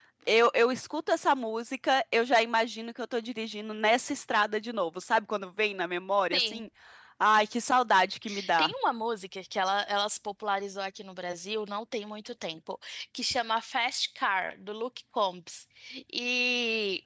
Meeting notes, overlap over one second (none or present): none